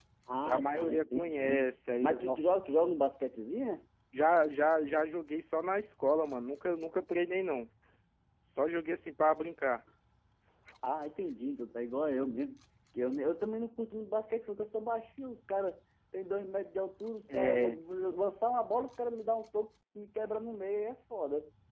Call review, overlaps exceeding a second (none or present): present